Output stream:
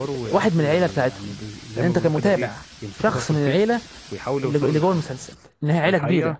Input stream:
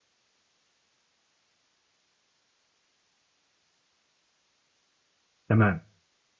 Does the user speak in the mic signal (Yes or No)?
Yes